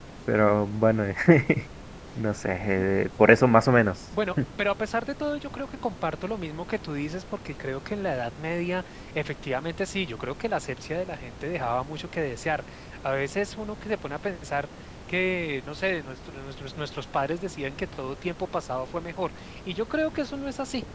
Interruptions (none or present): none